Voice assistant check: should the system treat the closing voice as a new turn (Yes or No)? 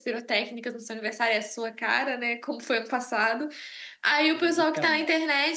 No